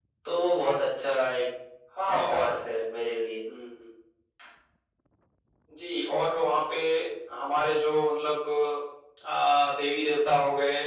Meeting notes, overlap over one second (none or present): none